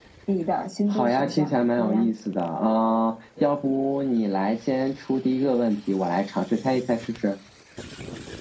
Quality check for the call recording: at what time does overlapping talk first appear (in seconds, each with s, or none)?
0.9 s